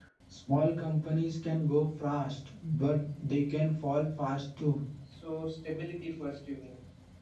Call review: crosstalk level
none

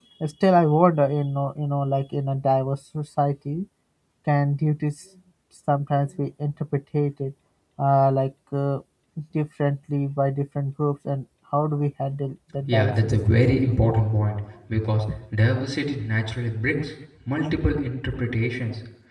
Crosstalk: present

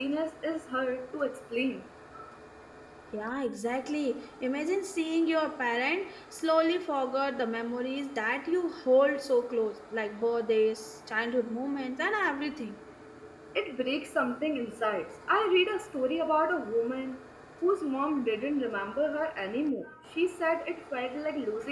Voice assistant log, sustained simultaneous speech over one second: none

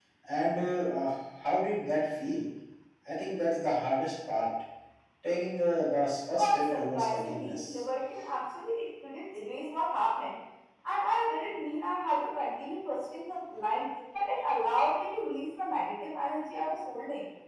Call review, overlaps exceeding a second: present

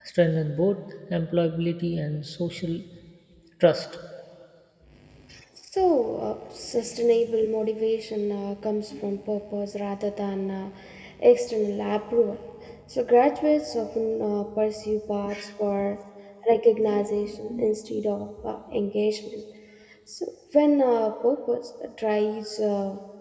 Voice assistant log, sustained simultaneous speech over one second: none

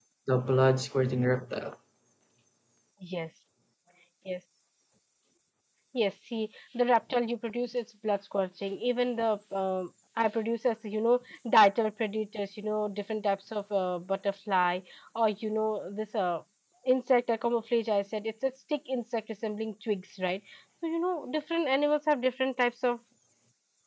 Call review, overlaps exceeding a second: none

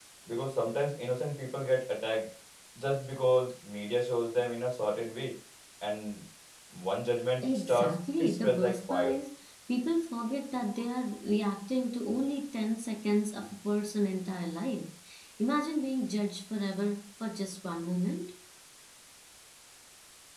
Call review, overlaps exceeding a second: present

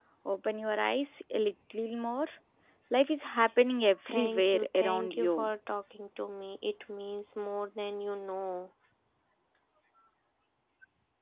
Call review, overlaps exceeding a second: present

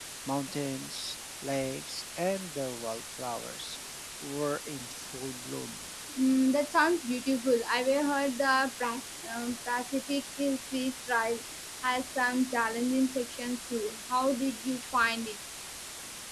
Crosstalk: none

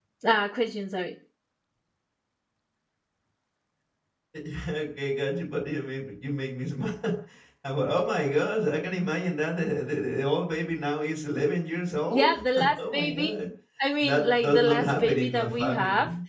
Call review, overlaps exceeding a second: present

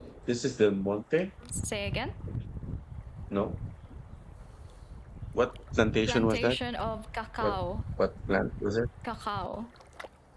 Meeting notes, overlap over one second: none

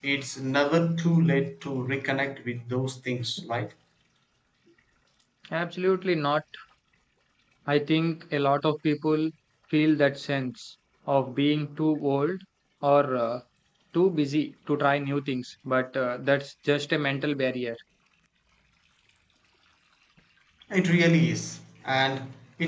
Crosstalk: none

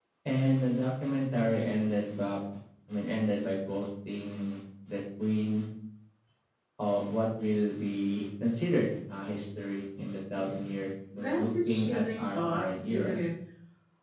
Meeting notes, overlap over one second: present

